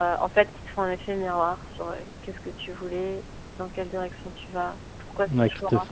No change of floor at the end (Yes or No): No